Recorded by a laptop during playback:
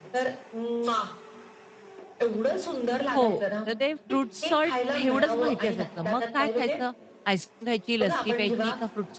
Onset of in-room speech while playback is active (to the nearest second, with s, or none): 3 s